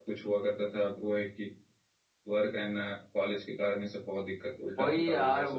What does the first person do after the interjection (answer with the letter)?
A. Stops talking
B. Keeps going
A